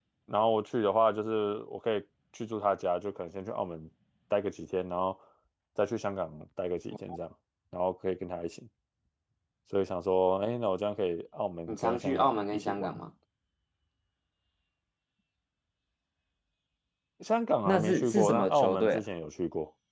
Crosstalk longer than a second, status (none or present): present